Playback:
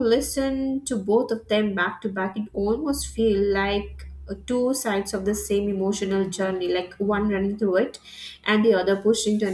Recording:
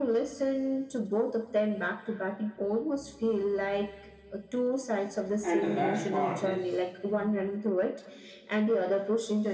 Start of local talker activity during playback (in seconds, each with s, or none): 5.4 s